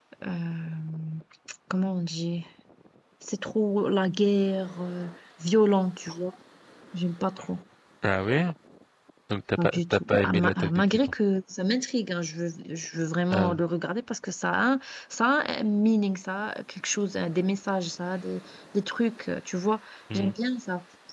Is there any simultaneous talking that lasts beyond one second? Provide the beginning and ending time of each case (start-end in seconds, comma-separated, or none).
9.6-11.1